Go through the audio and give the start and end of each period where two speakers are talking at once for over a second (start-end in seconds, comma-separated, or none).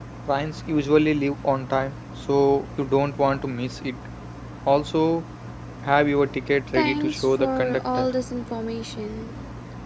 6.7-8.1